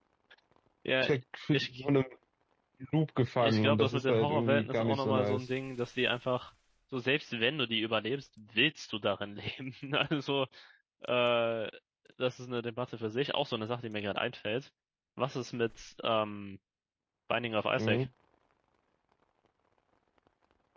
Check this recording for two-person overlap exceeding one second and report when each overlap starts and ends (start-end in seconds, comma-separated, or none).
3.4-5.5